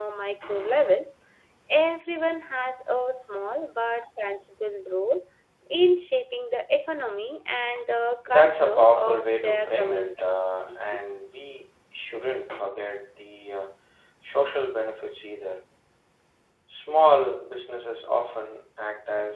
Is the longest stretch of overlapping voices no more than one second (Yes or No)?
No